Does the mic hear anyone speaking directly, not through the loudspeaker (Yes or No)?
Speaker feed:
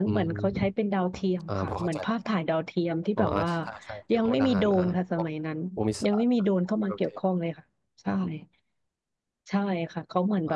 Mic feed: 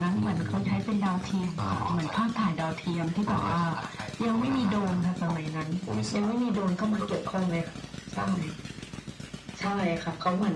No